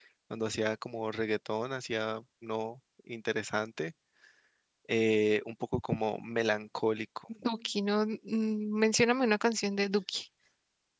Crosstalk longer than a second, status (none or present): none